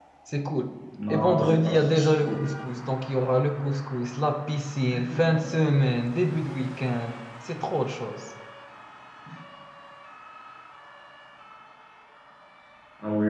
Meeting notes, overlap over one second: present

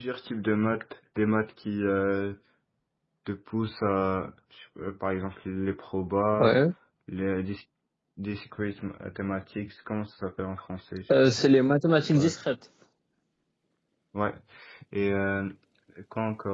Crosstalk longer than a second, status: none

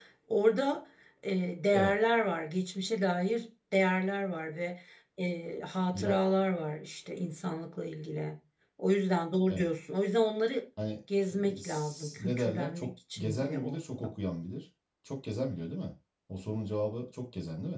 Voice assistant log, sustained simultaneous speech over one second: present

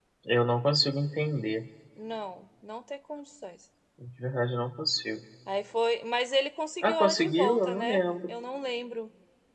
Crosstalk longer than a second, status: present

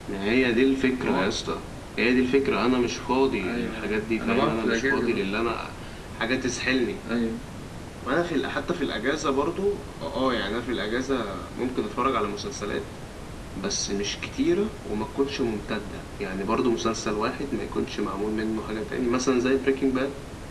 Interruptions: present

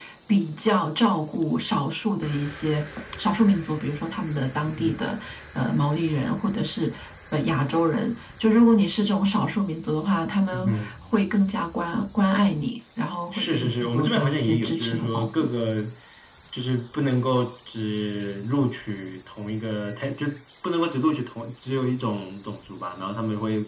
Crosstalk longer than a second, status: present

